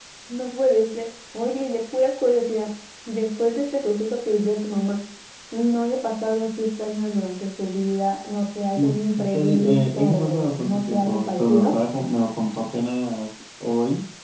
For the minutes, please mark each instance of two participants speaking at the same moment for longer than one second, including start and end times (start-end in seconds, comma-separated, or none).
9.3-11.7